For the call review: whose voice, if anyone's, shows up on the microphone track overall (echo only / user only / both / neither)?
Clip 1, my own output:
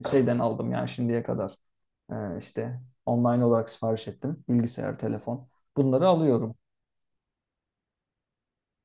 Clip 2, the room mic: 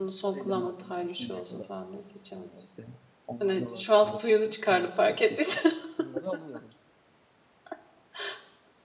both